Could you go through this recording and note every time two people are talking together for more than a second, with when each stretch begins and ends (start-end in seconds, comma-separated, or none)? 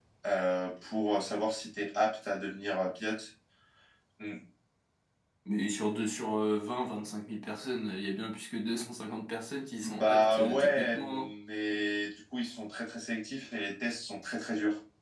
9.8-11.3